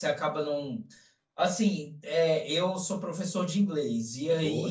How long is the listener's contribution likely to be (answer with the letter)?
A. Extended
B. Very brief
B